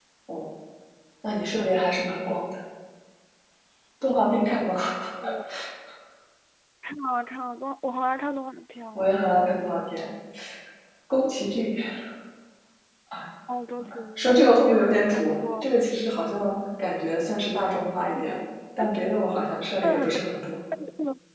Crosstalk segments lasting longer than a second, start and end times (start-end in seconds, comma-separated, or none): 14.2-15.6